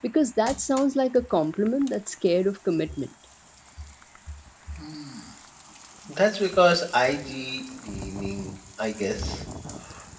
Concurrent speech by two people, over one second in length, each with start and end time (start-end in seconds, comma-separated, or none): none